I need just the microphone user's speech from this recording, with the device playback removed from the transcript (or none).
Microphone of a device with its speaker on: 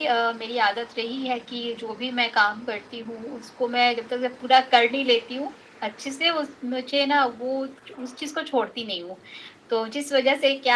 none